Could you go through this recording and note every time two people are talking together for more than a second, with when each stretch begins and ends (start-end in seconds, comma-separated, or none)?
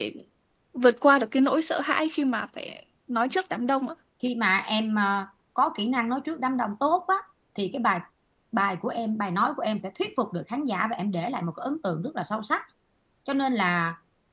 none